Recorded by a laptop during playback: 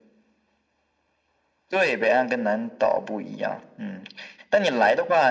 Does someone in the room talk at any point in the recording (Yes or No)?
No